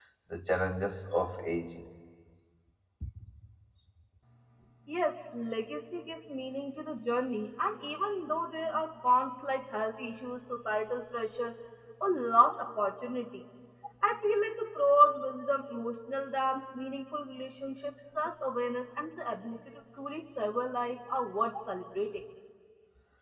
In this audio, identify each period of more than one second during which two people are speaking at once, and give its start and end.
none

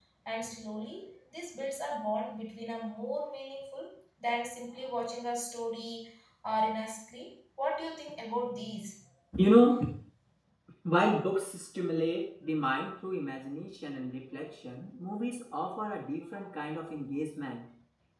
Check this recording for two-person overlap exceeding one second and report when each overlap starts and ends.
none

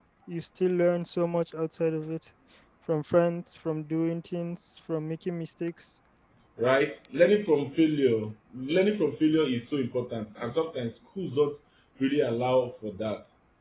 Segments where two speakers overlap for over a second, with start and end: none

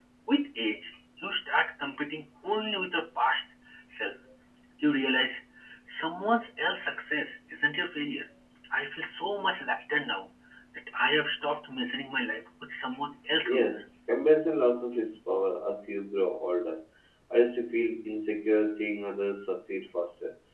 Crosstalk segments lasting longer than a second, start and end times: none

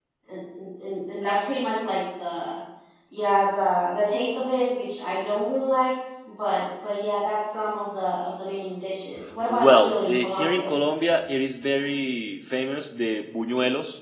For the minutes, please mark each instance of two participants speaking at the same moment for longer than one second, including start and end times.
9.5-10.7

